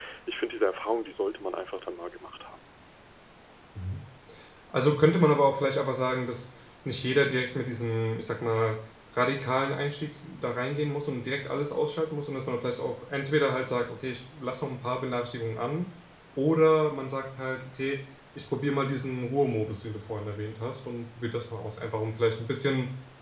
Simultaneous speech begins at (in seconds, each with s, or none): none